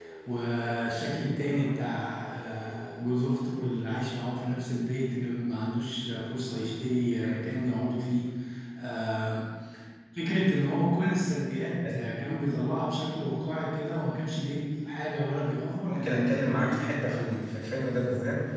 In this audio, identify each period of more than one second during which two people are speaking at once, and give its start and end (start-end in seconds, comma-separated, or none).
15.8-17.5